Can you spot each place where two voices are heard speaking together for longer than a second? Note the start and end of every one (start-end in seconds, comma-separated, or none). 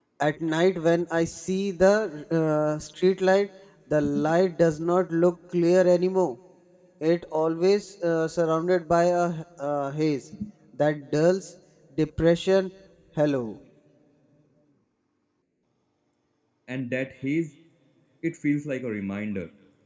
none